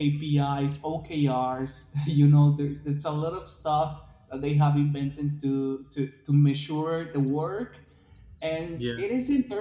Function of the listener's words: listening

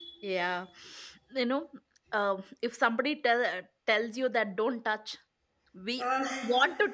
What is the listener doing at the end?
listening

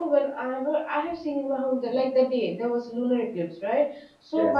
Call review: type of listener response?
listening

